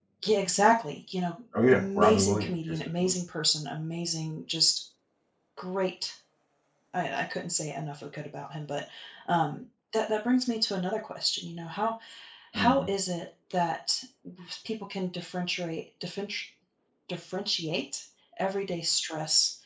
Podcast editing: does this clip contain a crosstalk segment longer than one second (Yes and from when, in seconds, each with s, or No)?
Yes, from 1.7 s